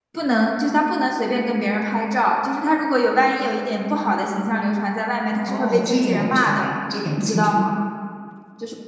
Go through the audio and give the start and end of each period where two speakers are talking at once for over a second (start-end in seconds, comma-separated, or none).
5.4-6.7